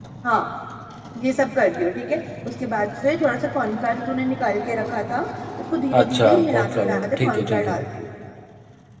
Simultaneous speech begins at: 6.0 s

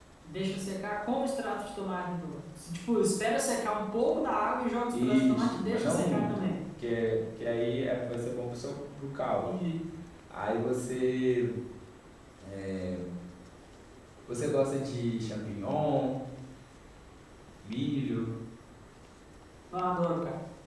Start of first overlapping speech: 4.9 s

